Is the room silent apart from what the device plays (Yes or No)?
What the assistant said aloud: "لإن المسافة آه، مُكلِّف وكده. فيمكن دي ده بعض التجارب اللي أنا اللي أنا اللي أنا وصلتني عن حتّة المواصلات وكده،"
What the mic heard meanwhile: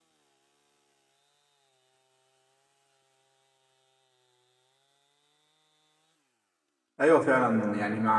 No